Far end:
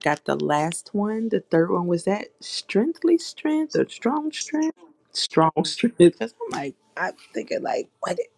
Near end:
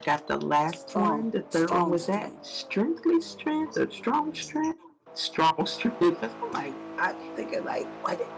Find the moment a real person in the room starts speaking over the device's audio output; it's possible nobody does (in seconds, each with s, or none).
0.8 s